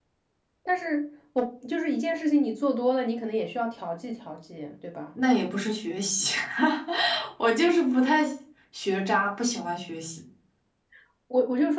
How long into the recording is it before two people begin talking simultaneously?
none

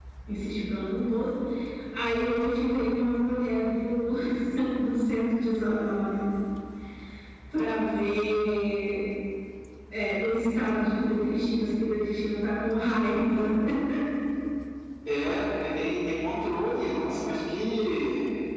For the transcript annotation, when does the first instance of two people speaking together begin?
none

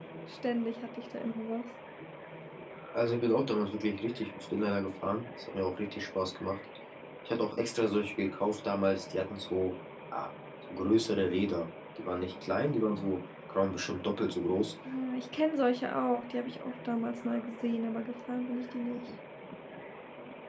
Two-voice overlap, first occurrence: none

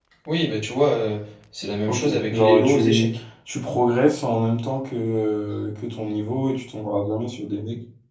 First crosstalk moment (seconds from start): 1.9 s

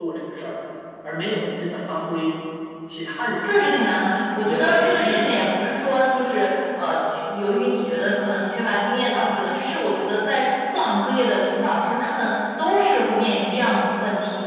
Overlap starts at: 3.4 s

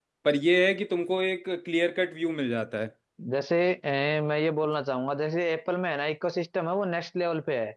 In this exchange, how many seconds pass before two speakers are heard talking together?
none

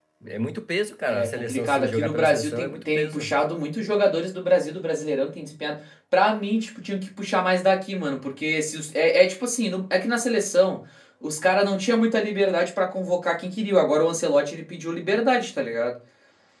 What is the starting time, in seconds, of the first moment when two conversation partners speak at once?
1.1 s

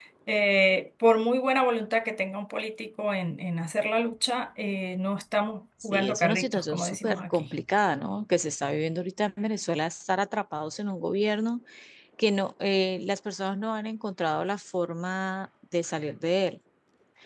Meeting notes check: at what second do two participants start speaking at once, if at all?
5.8 s

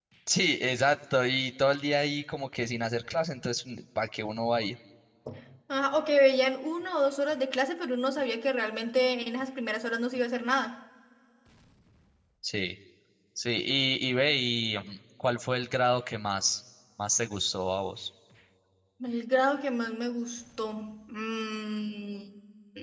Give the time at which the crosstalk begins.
none

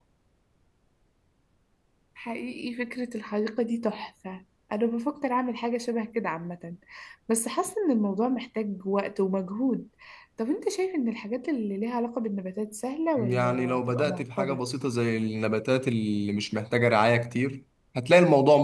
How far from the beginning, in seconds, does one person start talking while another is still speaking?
13.2 s

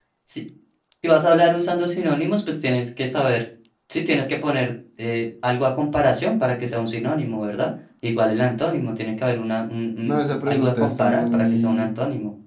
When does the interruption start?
10.0 s

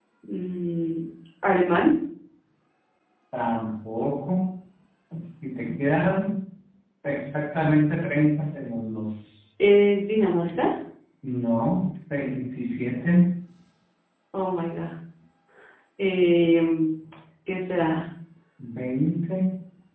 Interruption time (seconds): none

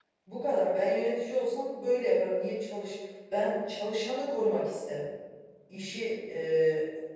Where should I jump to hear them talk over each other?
none

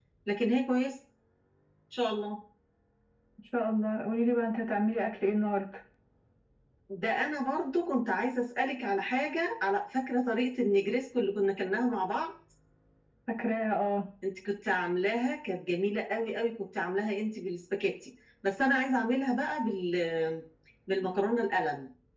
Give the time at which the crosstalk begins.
none

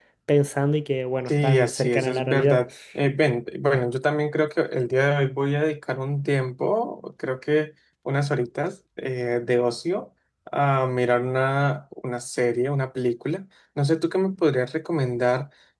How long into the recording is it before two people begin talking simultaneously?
1.3 s

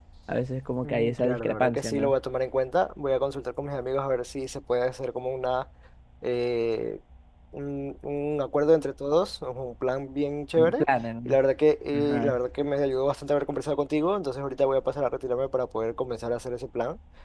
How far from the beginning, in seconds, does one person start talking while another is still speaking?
0.8 s

